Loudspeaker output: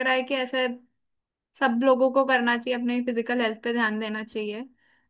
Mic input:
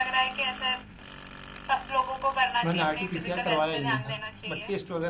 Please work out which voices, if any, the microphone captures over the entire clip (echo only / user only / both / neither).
both